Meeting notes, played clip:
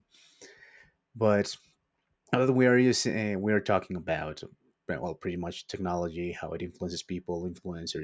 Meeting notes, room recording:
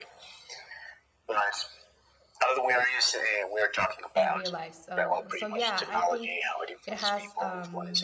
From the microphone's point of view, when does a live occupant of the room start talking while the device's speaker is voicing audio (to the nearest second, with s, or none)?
4 s